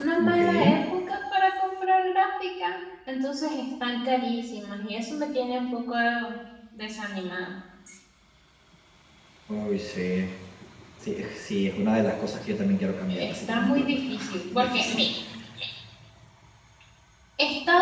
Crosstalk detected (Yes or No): Yes